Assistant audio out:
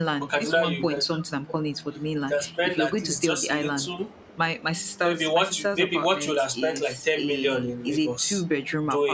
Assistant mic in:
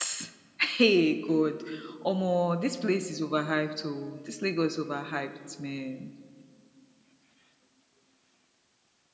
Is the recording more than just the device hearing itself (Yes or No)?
Yes